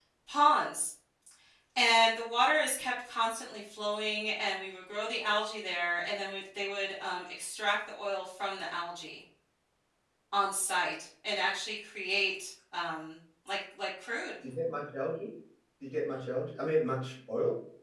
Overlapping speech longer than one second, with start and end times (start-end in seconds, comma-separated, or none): none